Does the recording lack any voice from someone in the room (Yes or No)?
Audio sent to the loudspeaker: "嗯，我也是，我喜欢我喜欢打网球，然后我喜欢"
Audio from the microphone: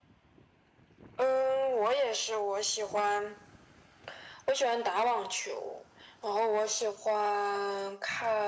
Yes